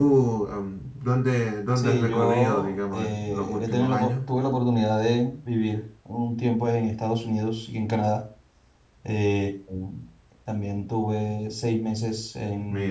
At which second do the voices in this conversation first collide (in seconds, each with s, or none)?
1.8 s